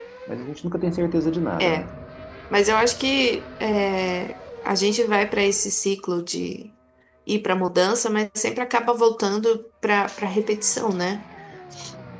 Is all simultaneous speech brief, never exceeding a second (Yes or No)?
Yes